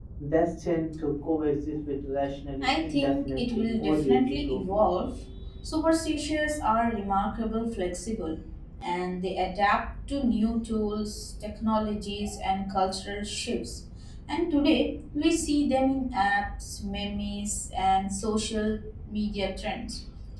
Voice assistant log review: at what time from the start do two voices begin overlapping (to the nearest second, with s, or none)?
3 s